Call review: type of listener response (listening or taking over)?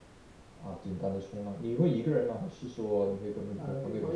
taking over